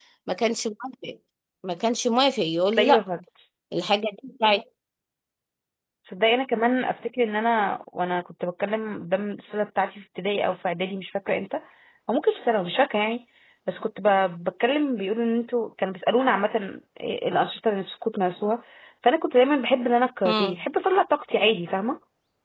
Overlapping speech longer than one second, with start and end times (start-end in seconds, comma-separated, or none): none